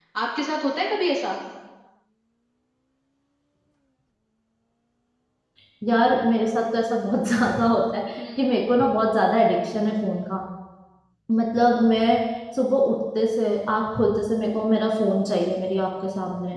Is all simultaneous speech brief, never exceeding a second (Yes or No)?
Yes